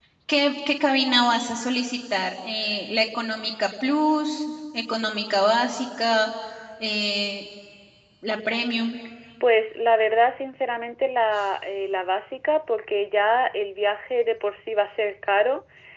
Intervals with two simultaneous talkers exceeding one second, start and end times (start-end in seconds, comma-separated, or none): none